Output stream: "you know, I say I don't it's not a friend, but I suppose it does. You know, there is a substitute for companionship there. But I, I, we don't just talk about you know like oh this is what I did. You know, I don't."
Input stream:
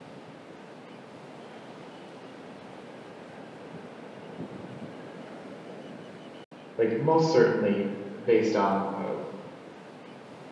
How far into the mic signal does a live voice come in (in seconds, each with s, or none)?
6.8 s